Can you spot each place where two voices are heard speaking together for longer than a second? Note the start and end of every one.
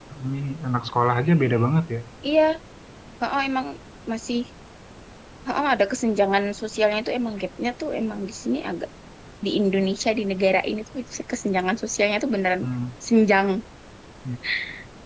none

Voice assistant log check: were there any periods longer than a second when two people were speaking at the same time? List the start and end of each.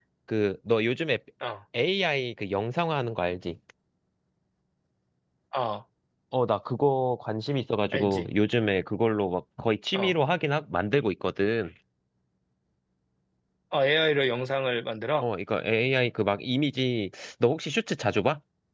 none

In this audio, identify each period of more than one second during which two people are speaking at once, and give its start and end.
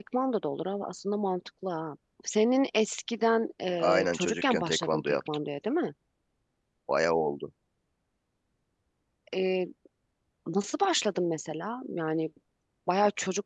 3.8-5.2

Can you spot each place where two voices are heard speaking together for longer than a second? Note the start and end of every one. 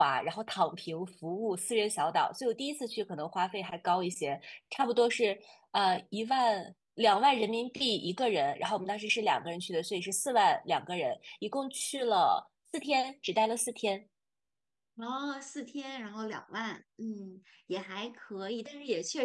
none

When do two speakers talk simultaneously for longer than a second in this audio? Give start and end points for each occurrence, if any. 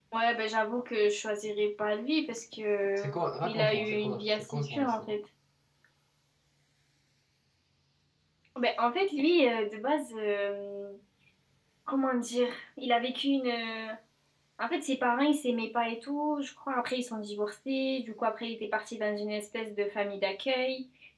3.0-5.1

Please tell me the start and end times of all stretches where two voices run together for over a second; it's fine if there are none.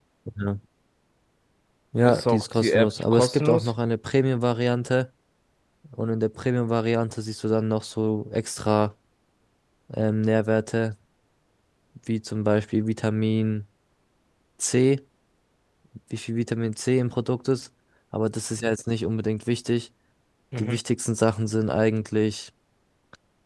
2.0-3.7

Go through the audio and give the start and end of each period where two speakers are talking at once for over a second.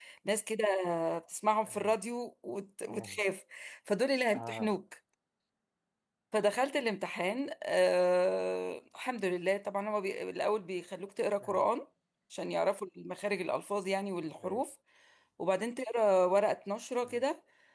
none

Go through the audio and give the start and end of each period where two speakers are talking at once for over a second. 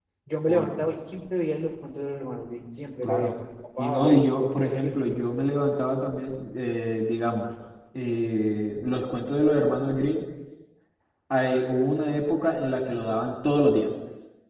3.8-5.1

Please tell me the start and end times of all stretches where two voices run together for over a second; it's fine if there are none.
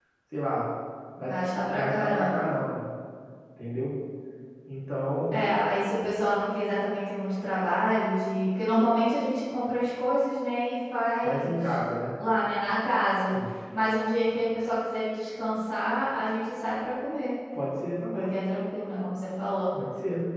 1.2-2.5

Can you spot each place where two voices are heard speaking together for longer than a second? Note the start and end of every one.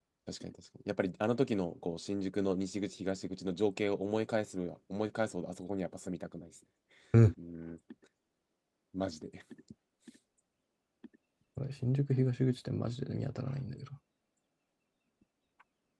none

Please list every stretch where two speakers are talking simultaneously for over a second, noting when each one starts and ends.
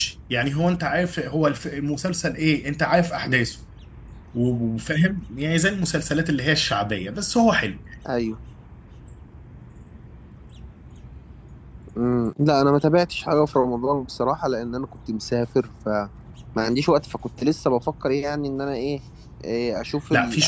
none

